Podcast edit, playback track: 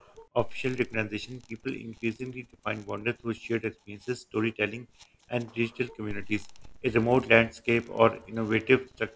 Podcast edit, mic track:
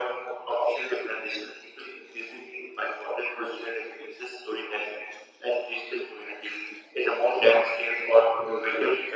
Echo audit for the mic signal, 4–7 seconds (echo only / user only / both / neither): echo only